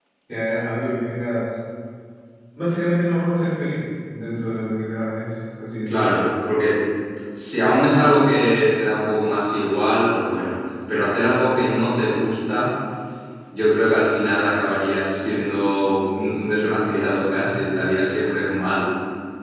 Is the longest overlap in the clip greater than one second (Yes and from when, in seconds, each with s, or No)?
No